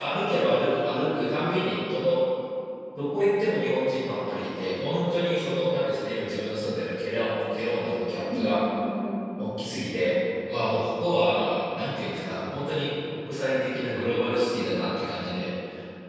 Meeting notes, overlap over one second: none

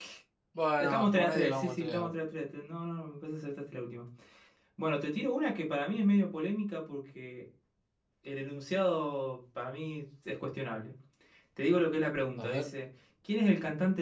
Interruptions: present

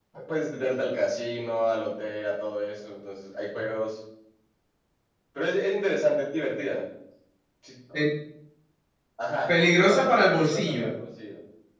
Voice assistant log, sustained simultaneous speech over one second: present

